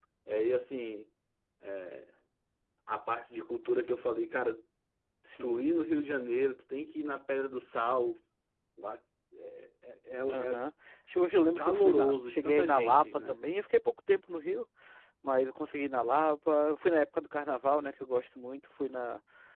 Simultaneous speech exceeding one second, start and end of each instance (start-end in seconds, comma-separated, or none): 11.6-13.4